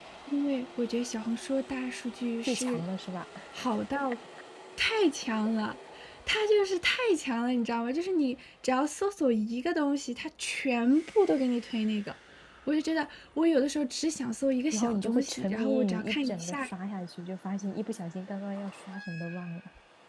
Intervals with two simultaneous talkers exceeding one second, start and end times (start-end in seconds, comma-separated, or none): 14.7-16.7